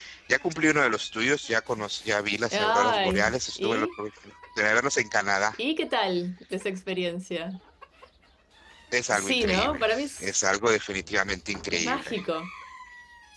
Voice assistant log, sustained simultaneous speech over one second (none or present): present